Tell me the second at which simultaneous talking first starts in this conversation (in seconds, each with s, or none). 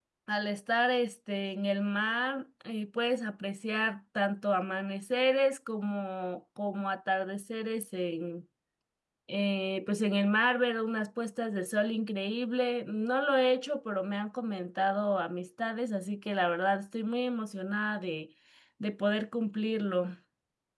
none